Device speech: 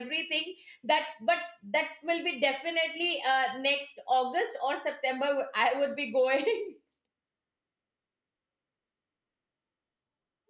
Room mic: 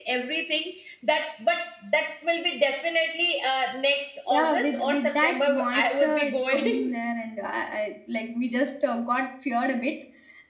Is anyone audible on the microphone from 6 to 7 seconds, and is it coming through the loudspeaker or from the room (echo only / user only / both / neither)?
both